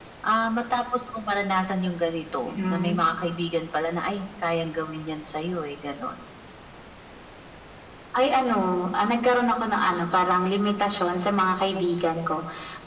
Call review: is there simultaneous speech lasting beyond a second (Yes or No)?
No